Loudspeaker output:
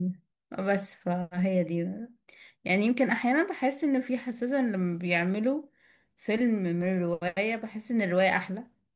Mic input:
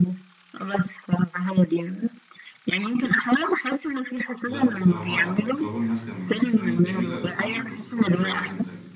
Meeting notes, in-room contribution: present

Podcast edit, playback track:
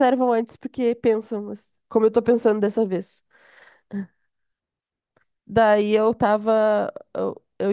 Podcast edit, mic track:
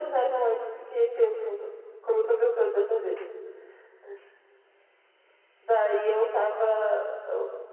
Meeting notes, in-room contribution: none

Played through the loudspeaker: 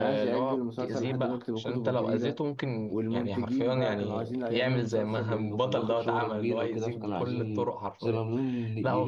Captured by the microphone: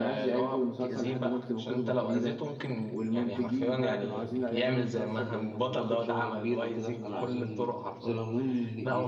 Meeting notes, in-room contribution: none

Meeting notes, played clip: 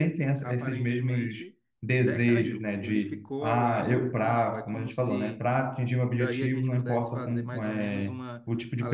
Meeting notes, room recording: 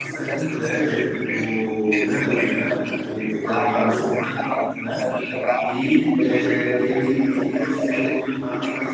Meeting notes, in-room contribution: present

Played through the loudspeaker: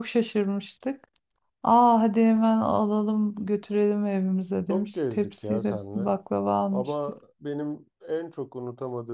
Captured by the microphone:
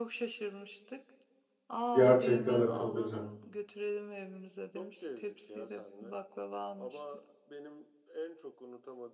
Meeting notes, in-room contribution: present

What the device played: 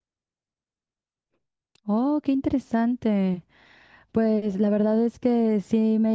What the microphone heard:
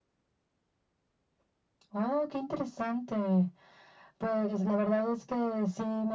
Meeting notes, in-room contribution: none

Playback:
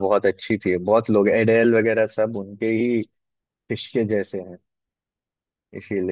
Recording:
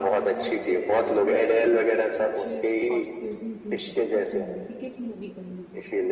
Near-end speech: present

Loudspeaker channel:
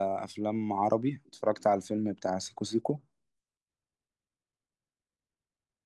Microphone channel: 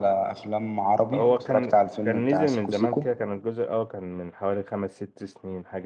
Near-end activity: present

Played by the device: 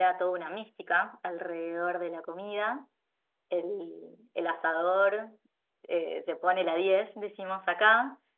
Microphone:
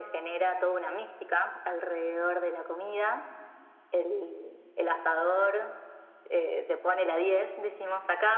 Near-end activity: none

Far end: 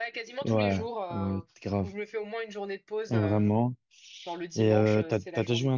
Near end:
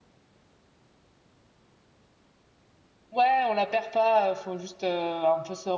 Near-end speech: present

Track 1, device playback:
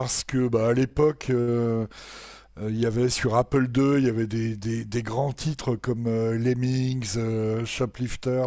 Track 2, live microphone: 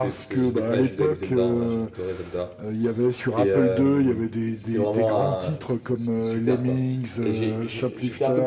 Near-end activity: present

